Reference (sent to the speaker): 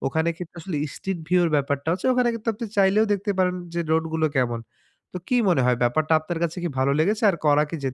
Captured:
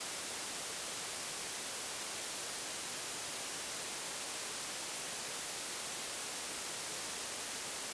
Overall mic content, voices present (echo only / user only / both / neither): neither